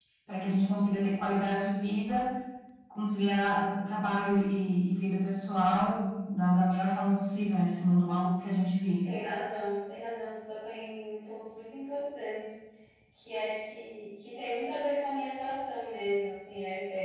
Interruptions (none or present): none